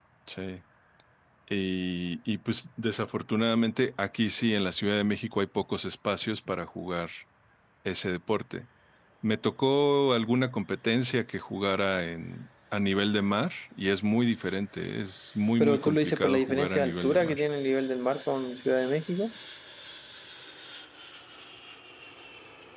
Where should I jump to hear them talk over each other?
15.6 s

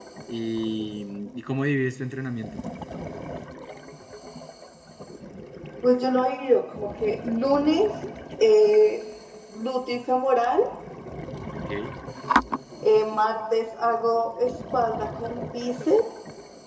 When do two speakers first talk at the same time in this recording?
none

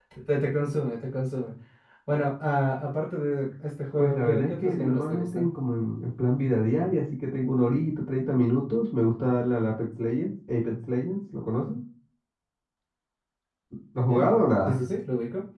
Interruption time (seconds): 4.0 s

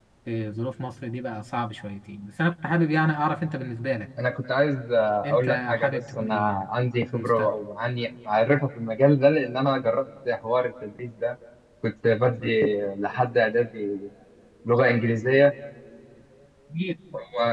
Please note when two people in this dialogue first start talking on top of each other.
5.2 s

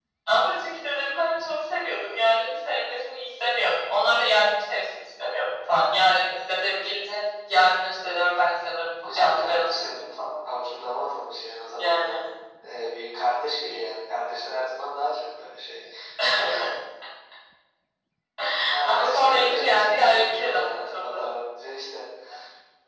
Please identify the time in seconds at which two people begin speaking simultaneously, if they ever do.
9.1 s

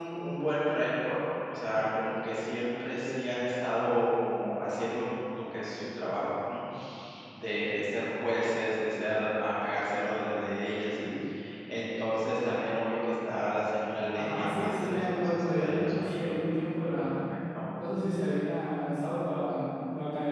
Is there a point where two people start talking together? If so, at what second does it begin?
14.1 s

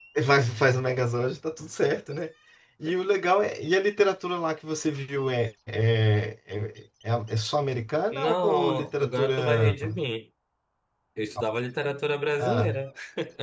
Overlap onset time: 8.1 s

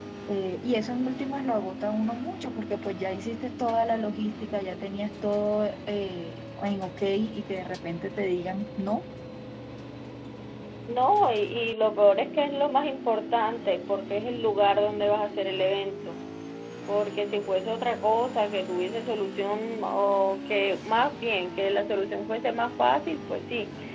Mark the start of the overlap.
none

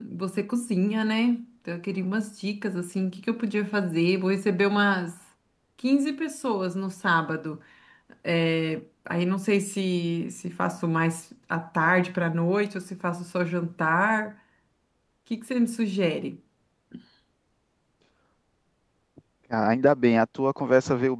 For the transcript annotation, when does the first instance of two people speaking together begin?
none

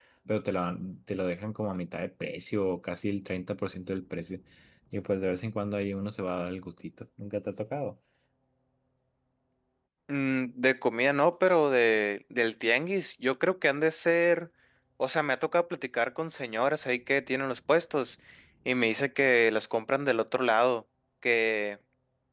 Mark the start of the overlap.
none

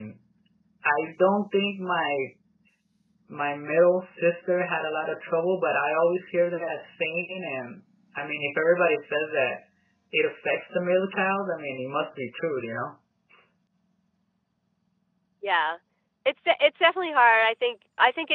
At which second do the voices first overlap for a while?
none

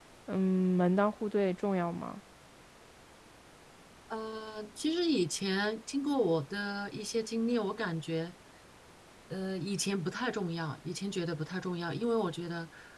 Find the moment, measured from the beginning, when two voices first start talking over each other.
none

